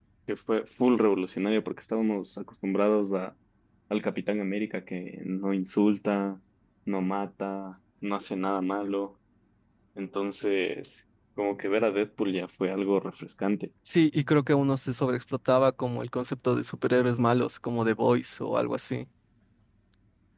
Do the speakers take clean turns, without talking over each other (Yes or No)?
Yes